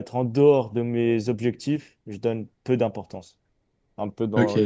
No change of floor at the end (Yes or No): No